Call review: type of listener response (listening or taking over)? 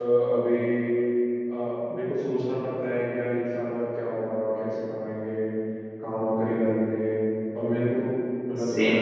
taking over